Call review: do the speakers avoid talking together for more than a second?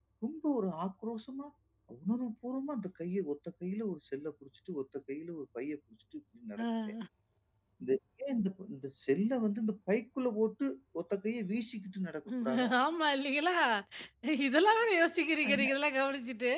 Yes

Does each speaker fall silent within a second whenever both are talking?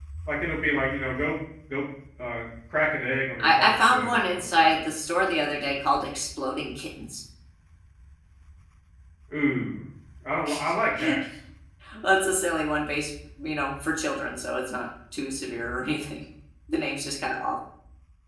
No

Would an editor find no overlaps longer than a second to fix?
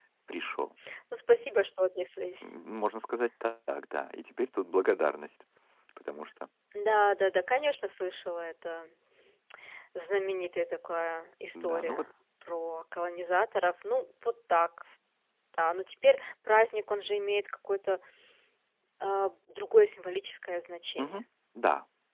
Yes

